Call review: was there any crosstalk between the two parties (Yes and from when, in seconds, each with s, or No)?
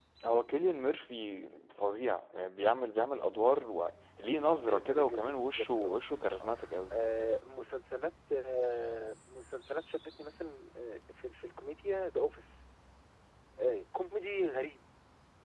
Yes, from 4.7 s